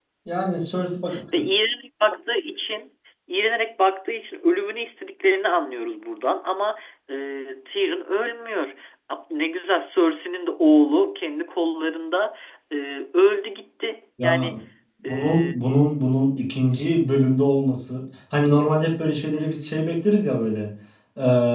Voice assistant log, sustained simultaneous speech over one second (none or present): none